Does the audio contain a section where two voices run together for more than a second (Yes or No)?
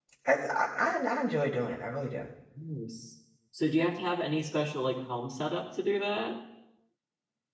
No